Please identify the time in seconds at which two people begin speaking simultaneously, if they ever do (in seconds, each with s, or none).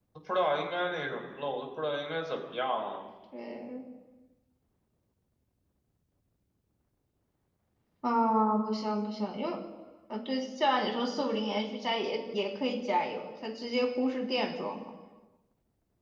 none